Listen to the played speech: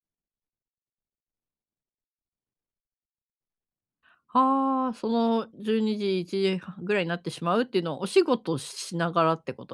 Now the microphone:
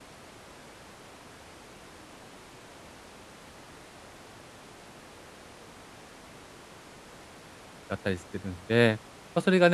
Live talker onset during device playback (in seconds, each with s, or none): 8.0 s